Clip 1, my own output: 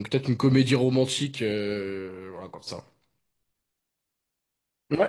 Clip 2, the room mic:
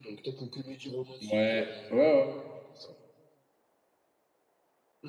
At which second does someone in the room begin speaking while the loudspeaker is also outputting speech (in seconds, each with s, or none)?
1.2 s